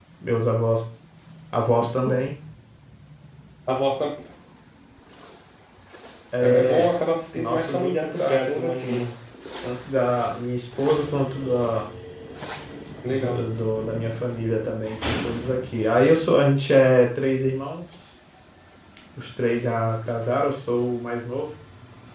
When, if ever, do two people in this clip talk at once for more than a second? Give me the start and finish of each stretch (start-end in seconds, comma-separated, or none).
7.3-9.1